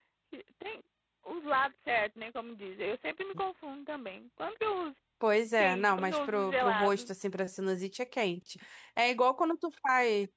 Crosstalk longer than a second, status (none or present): present